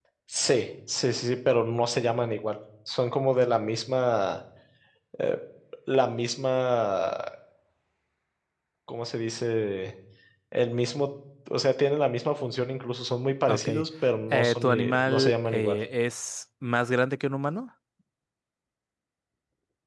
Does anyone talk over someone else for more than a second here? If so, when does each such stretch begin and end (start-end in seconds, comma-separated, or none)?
14.3-15.8